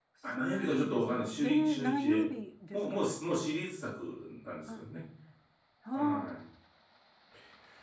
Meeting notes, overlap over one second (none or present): present